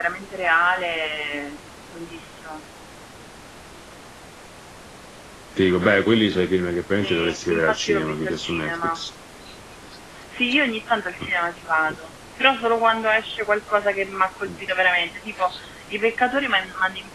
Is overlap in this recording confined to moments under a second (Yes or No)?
No